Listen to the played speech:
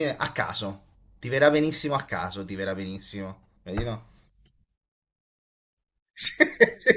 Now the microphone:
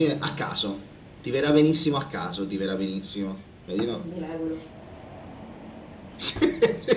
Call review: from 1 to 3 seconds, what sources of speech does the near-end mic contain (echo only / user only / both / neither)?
echo only